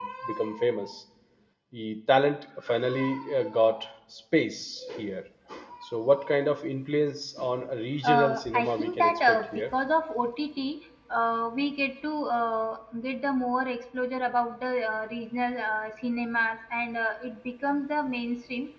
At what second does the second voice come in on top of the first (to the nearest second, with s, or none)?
8 s